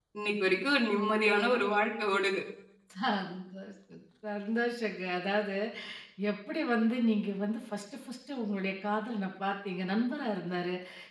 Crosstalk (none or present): none